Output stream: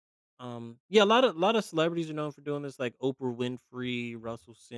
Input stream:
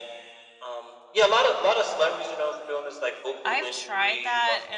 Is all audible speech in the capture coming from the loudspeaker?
No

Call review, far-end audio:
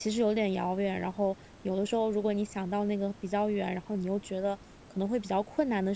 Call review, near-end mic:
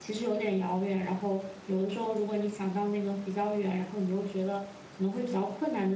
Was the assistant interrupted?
No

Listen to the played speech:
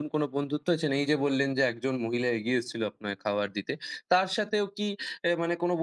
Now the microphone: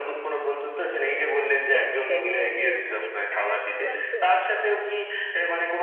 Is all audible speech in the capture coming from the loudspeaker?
No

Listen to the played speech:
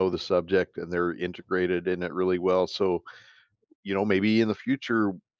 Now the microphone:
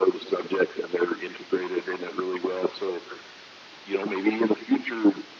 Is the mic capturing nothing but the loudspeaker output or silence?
Yes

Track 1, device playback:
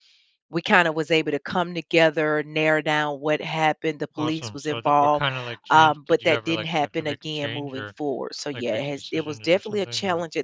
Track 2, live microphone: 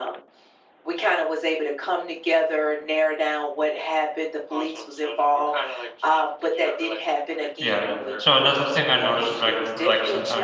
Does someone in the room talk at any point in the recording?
Yes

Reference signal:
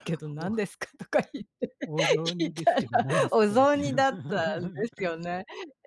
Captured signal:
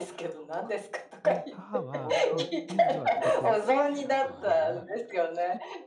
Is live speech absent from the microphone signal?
No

